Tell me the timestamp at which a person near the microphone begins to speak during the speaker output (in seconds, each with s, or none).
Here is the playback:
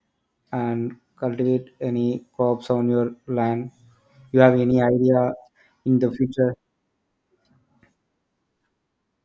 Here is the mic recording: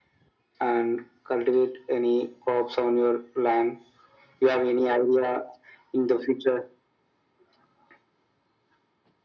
none